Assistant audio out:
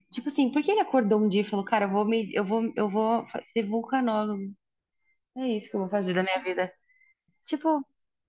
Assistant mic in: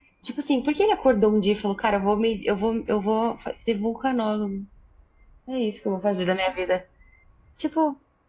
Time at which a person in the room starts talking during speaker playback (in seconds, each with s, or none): none